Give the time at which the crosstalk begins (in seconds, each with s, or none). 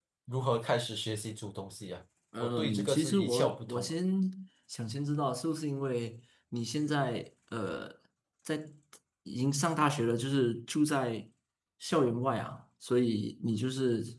2.3 s